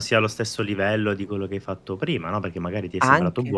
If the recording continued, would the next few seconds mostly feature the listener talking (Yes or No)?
No